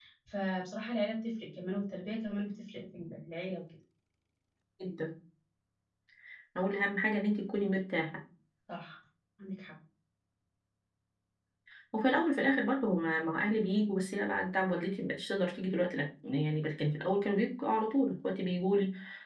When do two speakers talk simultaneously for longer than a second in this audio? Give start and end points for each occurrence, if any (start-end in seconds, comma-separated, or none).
none